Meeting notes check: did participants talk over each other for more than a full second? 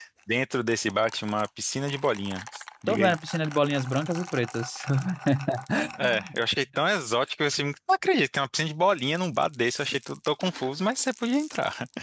No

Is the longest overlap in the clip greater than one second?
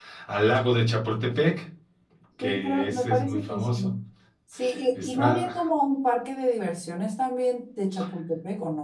Yes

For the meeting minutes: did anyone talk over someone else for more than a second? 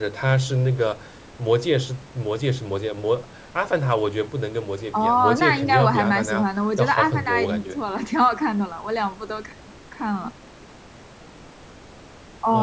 Yes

